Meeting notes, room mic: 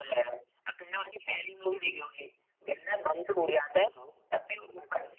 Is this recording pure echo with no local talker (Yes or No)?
No